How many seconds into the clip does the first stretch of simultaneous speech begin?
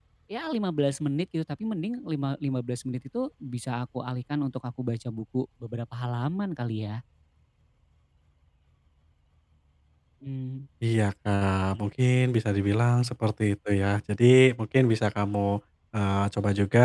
none

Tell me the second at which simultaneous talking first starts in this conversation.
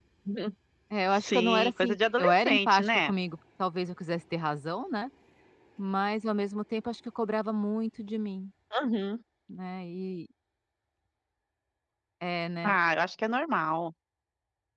1 s

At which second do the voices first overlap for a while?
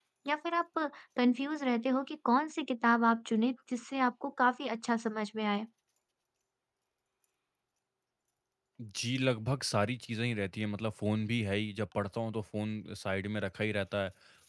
none

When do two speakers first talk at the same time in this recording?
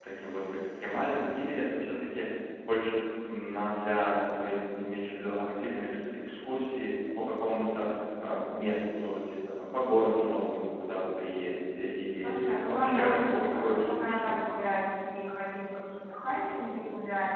12 s

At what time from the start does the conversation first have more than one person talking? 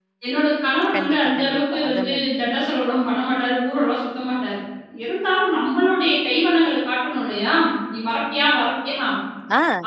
1 s

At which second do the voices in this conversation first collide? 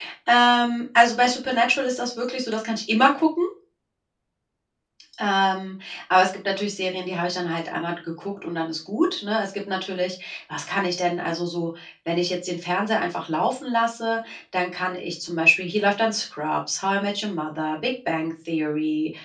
none

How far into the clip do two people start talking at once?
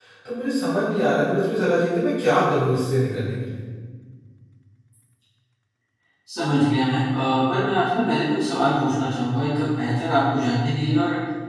none

